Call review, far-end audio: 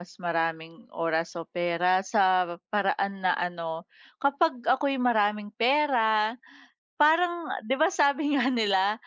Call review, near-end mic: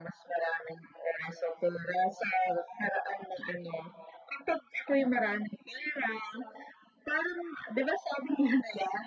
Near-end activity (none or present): none